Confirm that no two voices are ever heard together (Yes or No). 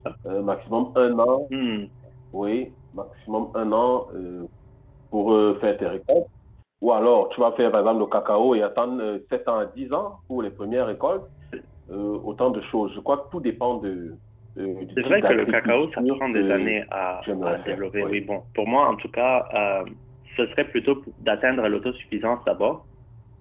No